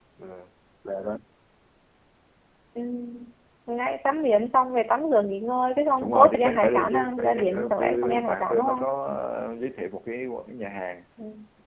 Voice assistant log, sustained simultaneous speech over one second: present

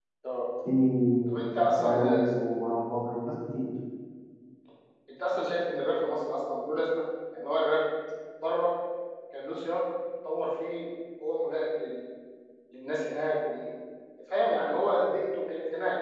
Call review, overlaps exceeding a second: none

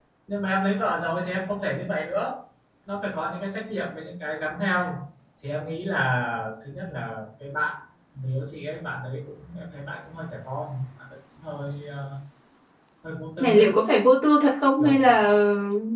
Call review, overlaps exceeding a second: none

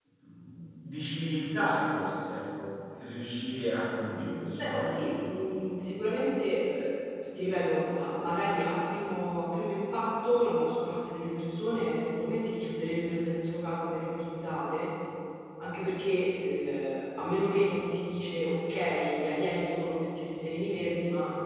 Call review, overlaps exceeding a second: none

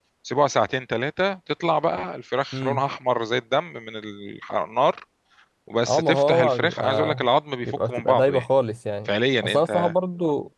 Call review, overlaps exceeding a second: present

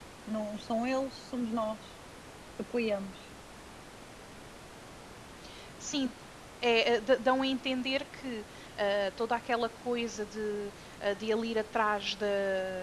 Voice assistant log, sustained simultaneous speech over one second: none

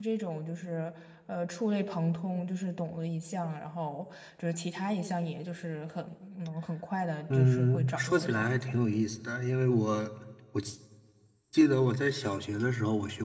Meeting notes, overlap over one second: present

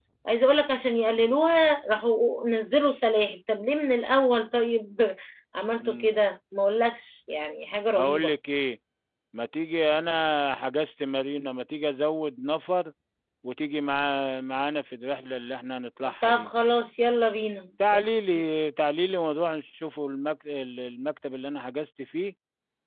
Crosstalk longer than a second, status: none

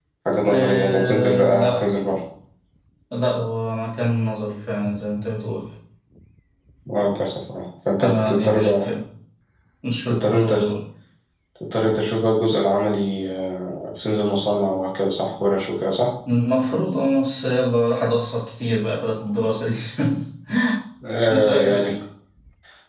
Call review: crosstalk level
present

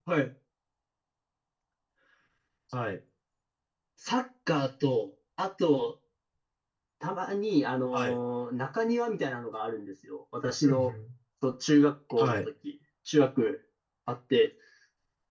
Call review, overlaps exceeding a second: none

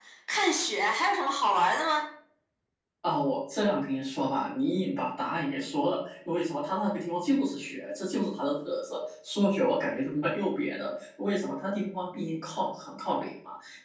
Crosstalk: none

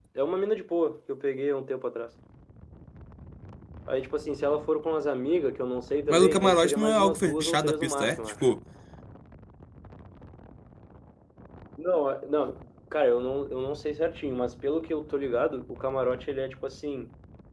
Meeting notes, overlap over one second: present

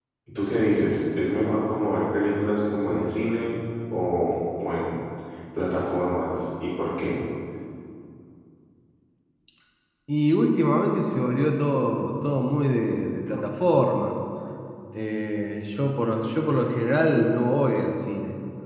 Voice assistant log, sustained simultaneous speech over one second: none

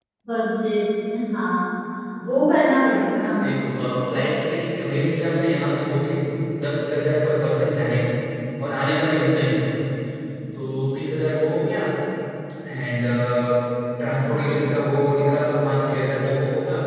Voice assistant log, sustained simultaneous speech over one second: none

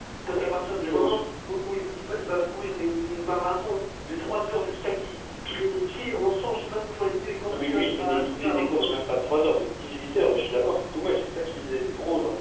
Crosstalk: present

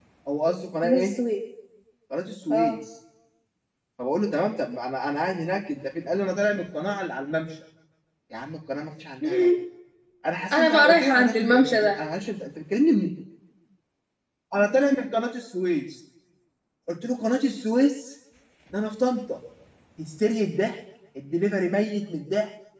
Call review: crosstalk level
present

